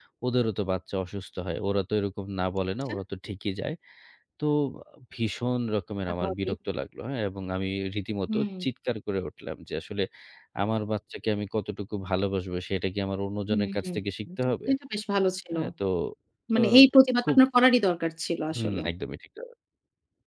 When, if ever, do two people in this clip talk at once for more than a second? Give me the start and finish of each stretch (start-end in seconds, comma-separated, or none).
none